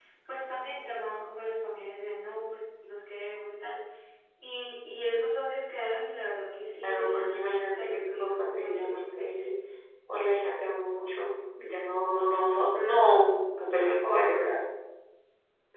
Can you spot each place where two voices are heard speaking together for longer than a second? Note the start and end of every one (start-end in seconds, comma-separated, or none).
6.8-9.4